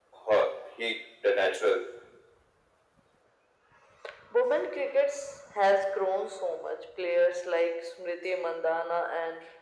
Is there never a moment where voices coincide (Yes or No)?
Yes